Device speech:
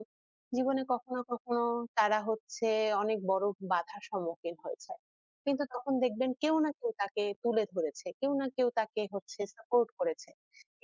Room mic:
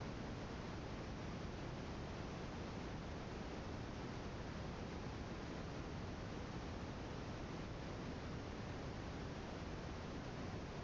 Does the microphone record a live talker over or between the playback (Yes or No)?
No